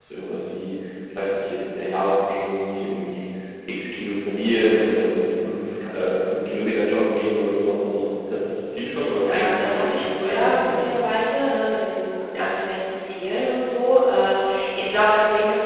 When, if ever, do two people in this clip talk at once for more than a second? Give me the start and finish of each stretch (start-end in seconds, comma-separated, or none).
9.2-10.9